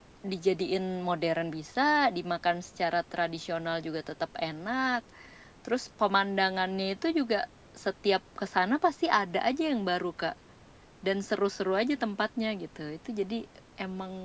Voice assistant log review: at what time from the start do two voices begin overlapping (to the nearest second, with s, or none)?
none